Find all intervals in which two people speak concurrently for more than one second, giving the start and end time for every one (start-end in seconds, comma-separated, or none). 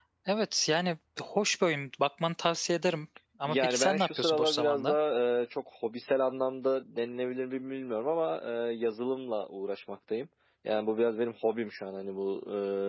3.5-5.0